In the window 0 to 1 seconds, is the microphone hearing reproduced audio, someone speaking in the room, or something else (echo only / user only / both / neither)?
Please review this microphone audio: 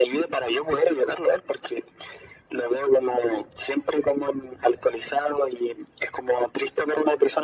echo only